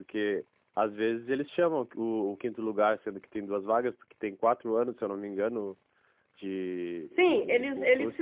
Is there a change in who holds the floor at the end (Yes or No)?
Yes